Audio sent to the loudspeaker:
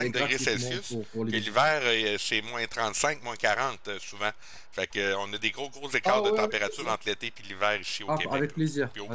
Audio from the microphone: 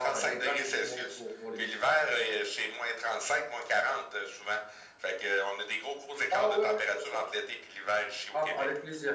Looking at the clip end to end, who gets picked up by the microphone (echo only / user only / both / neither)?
echo only